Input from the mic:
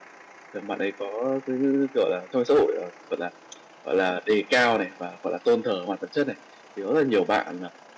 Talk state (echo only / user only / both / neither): echo only